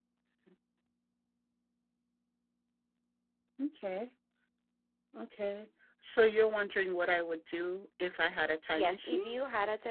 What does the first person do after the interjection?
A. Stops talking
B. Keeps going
A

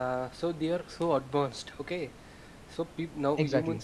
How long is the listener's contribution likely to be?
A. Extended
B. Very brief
B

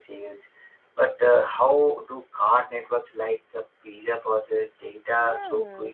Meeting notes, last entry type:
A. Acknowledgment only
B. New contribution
B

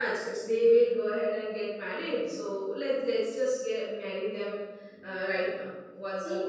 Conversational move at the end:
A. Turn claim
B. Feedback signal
A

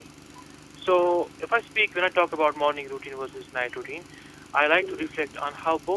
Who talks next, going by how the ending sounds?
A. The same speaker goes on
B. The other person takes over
A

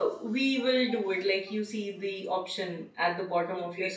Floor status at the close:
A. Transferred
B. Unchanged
A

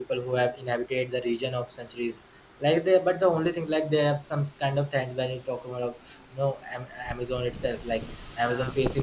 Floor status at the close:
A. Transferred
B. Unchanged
B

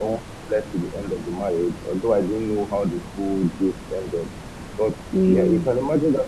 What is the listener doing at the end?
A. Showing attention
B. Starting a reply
A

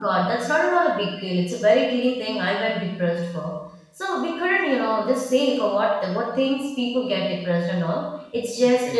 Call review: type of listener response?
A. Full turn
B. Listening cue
B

